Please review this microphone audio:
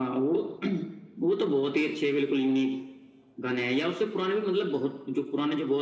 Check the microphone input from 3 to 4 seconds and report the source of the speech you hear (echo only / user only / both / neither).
echo only